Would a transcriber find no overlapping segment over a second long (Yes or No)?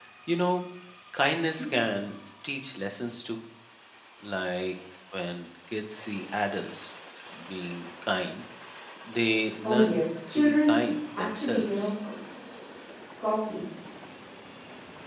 No